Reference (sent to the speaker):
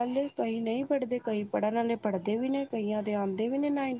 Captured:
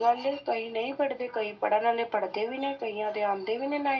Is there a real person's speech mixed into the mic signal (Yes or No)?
No